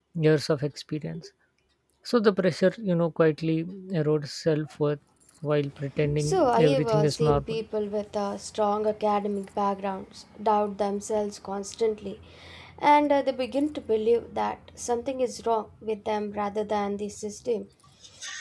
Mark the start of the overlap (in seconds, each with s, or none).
6.2 s